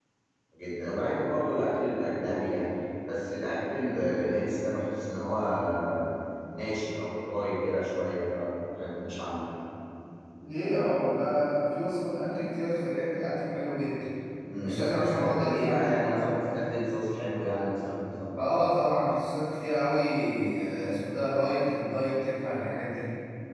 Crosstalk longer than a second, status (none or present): present